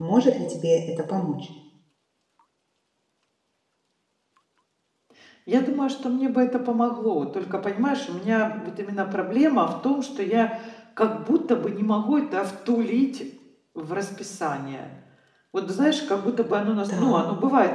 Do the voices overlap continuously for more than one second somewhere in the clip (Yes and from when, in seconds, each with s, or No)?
No